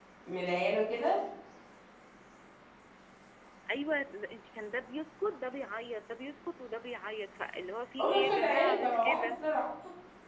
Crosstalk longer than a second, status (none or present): present